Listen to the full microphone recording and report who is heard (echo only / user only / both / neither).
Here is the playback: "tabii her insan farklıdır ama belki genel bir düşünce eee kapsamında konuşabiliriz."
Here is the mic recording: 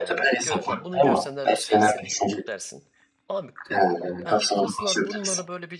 both